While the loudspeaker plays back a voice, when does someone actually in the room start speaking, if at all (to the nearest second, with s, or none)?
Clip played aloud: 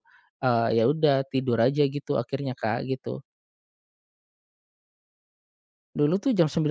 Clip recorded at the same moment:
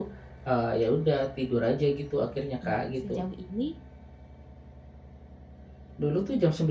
3 s